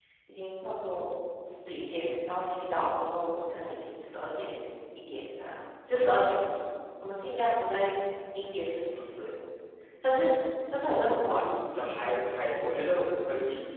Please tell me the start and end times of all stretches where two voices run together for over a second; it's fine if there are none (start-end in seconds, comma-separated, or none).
none